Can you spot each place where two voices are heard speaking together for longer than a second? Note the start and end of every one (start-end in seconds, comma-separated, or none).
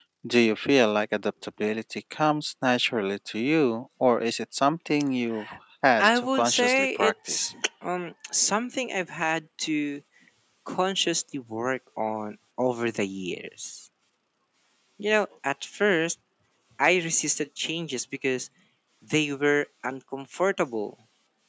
6.0-7.5